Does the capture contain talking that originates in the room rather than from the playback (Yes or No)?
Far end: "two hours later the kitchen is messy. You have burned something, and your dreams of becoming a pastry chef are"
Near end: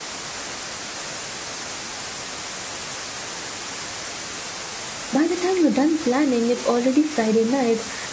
Yes